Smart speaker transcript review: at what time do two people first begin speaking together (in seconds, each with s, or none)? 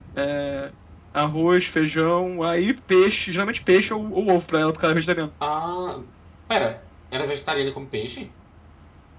none